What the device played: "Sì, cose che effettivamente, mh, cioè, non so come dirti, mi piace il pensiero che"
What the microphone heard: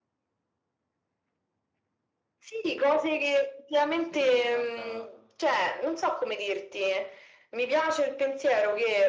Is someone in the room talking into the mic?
Yes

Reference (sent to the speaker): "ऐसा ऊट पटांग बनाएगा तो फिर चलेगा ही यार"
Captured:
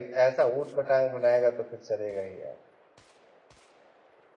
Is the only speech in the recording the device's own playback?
Yes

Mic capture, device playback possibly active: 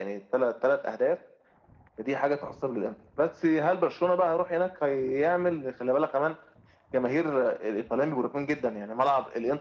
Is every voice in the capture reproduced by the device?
Yes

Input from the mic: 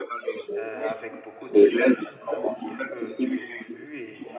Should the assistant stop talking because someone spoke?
Yes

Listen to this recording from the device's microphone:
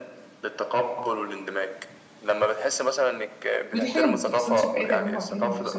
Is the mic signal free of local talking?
No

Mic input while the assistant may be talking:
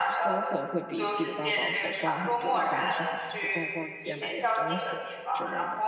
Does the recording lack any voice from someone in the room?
No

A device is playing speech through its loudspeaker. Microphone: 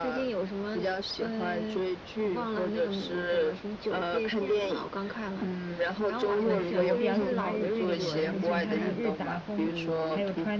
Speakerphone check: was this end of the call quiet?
No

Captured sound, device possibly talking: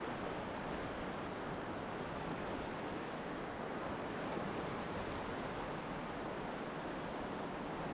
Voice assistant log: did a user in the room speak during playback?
No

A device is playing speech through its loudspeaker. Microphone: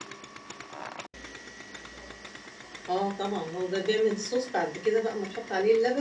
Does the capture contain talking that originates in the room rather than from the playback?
Yes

